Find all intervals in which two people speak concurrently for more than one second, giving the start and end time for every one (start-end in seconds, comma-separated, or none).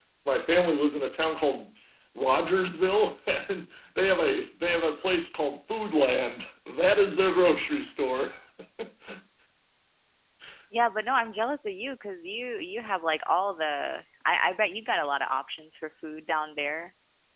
none